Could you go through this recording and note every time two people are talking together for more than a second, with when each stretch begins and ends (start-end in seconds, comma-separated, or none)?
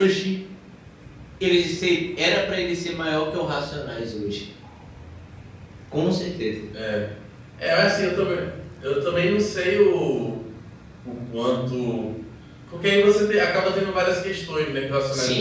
none